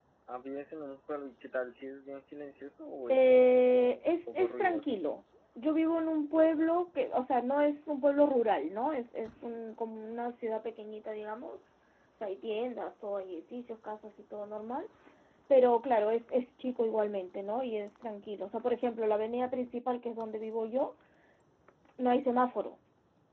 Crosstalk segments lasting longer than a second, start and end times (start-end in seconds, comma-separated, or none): 3.1-4.9